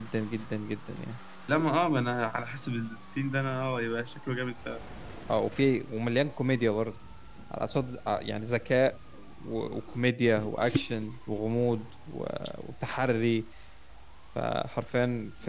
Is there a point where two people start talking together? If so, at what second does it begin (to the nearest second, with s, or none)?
none